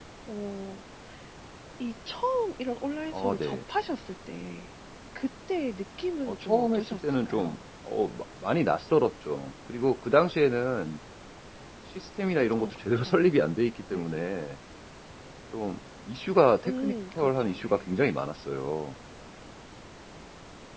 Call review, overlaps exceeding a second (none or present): present